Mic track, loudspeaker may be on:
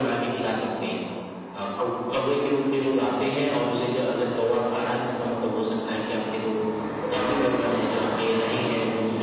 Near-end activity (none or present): none